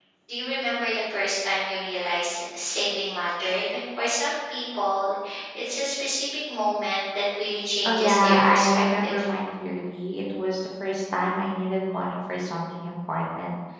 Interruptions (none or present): present